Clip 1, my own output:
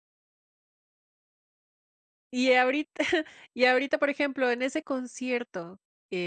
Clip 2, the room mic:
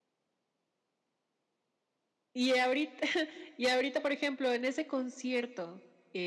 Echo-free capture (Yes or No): No